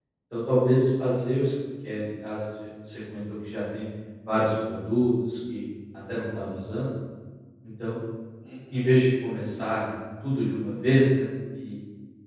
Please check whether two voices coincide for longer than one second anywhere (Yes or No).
No